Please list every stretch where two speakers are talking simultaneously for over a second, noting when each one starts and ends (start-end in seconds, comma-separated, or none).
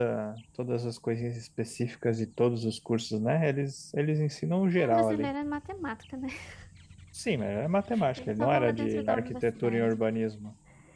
8.2-10.0